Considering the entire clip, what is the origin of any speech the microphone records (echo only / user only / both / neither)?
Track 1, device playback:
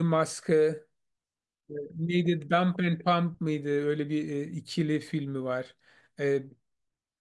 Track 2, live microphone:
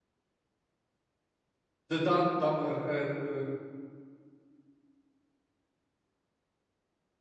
user only